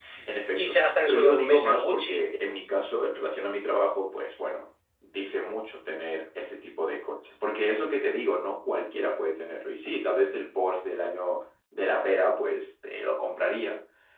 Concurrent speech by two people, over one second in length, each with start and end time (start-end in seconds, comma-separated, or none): 0.6-2.3